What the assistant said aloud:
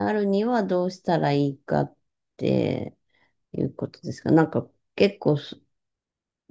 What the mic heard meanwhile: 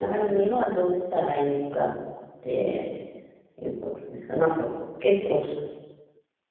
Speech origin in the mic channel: echo only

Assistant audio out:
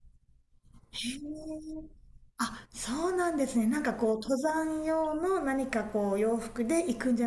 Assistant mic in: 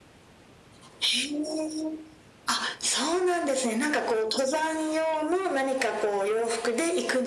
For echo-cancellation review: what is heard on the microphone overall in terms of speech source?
echo only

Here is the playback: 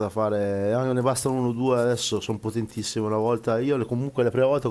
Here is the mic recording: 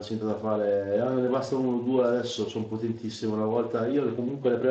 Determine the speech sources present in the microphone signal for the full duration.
echo only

